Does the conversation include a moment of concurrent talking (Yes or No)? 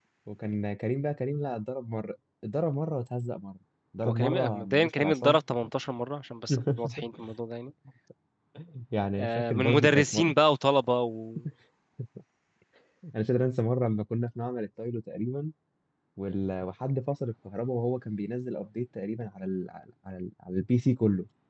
Yes